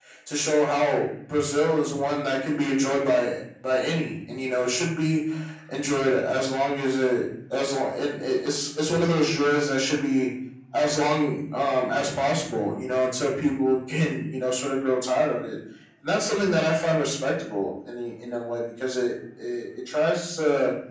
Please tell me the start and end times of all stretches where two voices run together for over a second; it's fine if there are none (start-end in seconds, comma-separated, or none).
none